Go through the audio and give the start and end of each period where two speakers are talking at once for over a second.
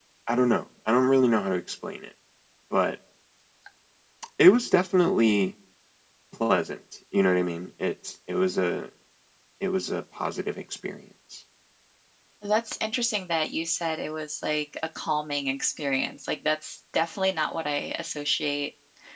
none

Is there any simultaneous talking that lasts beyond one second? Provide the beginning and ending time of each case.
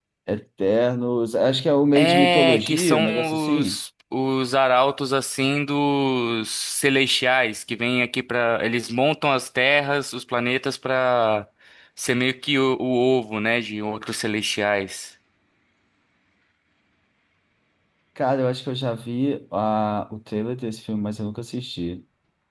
1.9-3.8

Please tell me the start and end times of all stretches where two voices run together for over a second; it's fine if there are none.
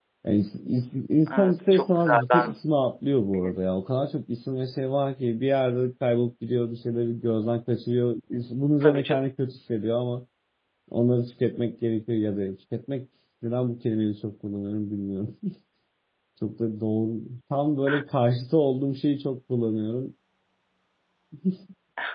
1.3-2.6

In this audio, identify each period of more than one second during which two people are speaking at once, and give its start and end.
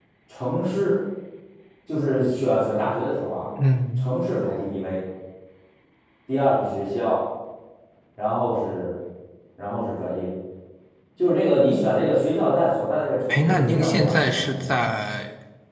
13.3-14.9

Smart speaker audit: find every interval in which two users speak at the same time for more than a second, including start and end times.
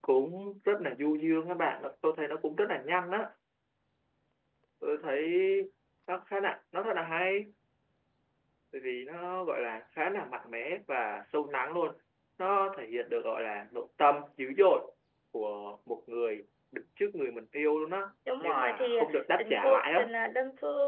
18.4-20.1

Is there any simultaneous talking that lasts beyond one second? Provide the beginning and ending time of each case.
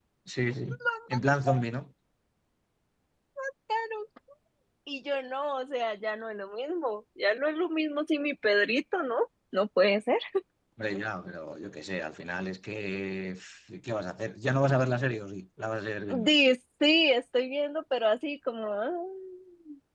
none

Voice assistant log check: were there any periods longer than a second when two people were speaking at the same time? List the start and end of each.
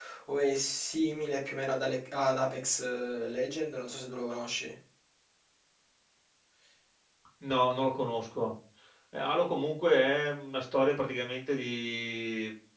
none

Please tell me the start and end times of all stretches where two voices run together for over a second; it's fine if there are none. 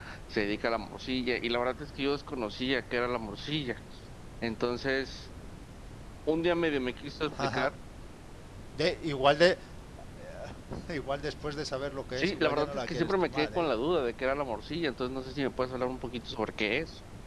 12.2-13.7

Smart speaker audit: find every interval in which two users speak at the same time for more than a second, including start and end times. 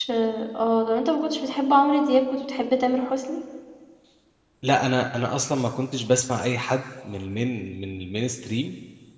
none

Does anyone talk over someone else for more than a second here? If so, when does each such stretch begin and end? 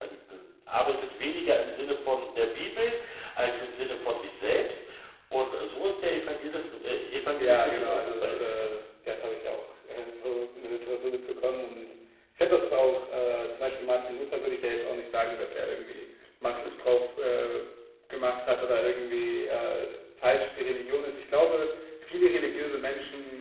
7.4-8.7

